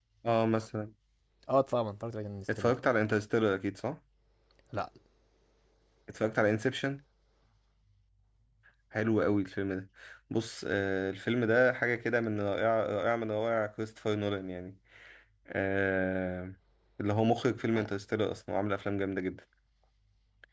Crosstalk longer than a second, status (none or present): none